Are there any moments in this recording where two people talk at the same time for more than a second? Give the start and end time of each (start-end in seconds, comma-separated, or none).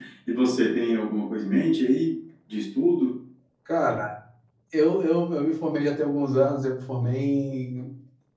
none